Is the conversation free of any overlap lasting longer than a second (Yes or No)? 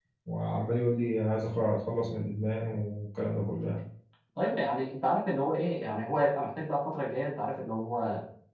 Yes